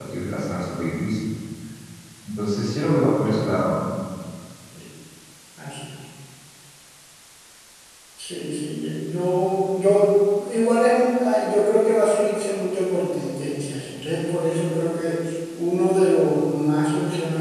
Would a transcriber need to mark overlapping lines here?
No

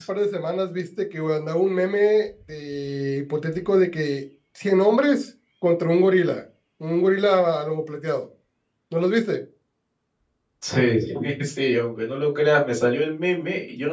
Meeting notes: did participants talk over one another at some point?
No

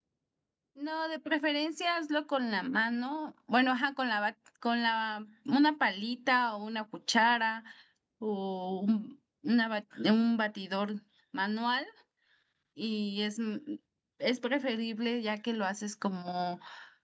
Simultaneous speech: No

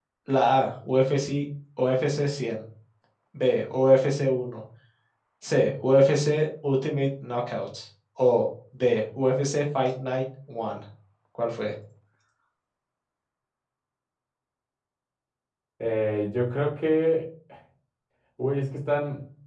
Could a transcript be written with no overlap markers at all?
Yes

